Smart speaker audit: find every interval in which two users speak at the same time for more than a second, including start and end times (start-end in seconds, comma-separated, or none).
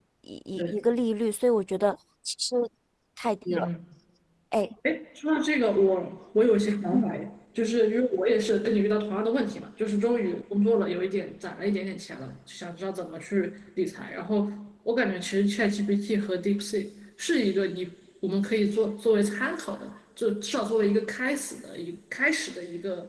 none